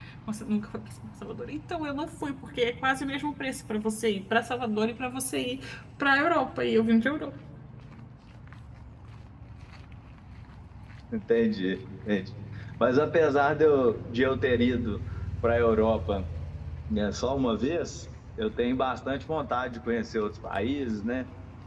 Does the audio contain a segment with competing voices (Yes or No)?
No